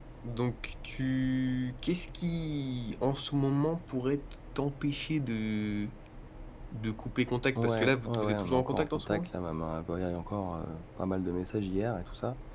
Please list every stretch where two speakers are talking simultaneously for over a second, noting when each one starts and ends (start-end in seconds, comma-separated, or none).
7.5-9.3